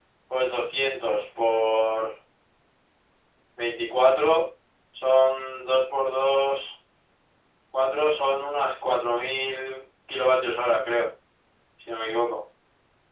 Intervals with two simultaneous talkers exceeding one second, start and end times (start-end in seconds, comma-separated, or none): none